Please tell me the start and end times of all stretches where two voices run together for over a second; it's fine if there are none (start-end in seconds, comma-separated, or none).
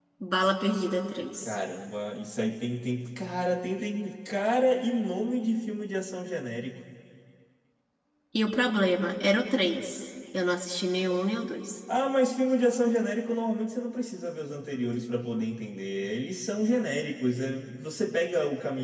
none